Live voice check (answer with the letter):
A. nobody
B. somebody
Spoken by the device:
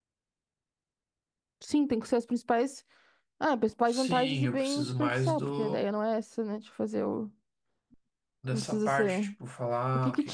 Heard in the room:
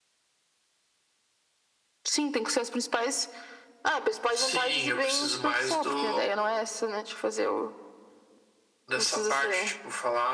A